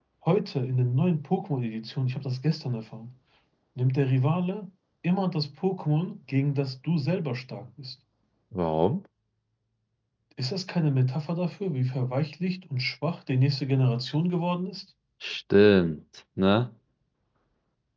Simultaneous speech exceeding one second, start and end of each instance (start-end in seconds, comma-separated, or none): none